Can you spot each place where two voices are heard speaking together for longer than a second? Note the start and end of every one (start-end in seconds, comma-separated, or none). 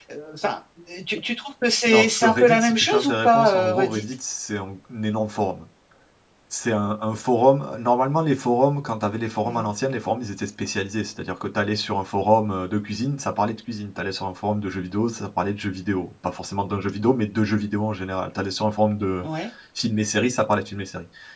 1.9-4.0